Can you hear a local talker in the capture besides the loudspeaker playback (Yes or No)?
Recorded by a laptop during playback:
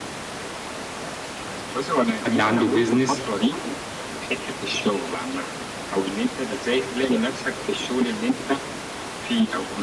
Yes